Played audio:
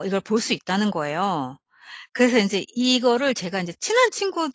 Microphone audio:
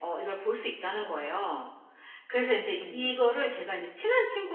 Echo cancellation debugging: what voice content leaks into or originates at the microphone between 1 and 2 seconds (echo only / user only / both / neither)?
echo only